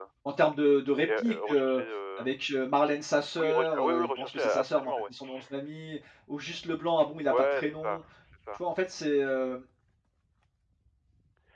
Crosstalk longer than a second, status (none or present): present